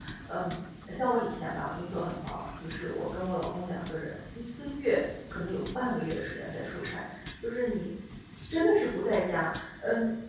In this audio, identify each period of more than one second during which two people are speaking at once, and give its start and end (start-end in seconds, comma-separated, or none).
none